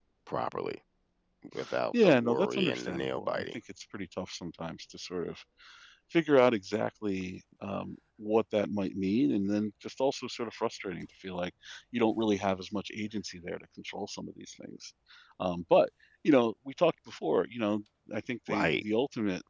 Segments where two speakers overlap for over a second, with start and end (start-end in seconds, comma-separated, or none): 2.0-3.4